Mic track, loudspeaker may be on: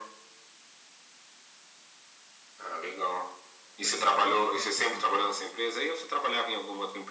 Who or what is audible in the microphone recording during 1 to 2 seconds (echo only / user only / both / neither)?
neither